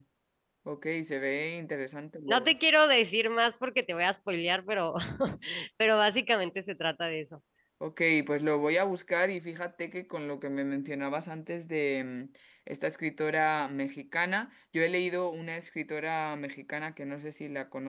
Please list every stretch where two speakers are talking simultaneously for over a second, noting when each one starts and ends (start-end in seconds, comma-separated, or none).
none